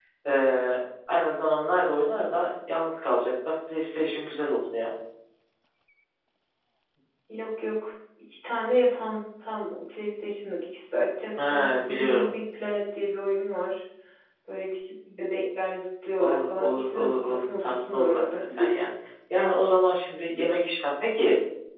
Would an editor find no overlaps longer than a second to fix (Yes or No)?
No